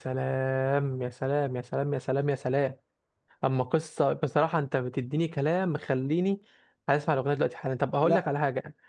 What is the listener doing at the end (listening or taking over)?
listening